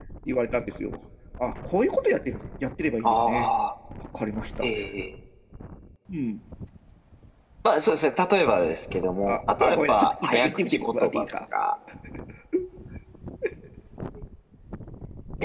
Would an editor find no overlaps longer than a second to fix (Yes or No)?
No